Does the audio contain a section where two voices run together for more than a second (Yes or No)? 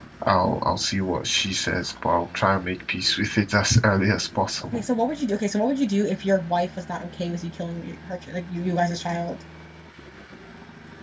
No